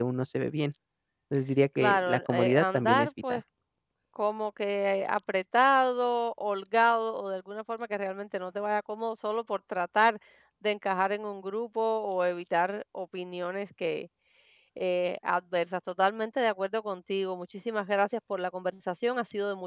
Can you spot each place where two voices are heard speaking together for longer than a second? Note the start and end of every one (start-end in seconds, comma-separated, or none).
1.8-3.4